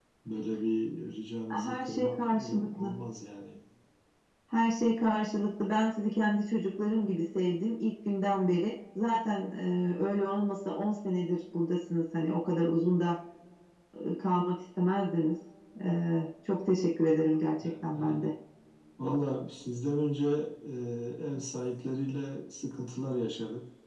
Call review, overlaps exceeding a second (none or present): present